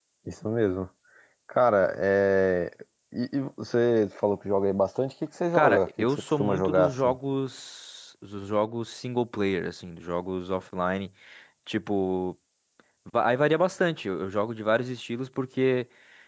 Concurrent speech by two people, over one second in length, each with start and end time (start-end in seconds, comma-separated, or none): 5.5-7.2